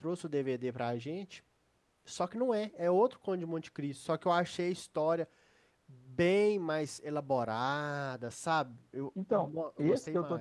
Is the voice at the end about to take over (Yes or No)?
Yes